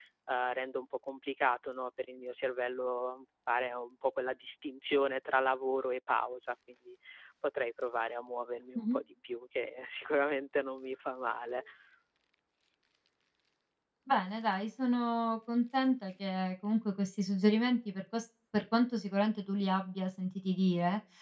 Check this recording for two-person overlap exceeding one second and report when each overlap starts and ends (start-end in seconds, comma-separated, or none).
none